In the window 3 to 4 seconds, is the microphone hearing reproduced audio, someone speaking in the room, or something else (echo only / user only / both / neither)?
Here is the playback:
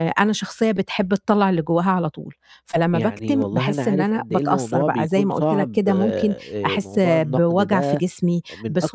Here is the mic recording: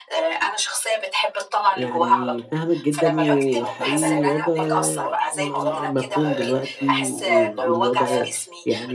both